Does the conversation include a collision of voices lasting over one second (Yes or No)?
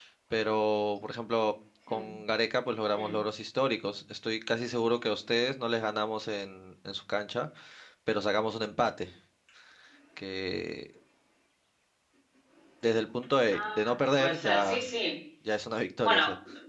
Yes